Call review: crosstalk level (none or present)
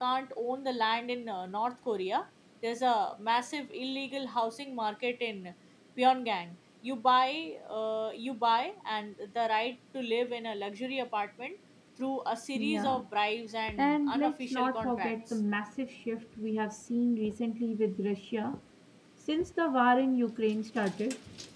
present